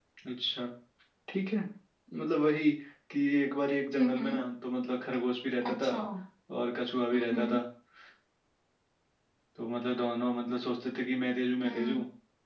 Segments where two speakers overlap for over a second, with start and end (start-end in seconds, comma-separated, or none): none